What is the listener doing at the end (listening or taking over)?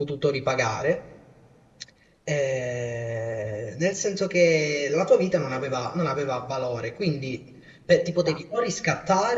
listening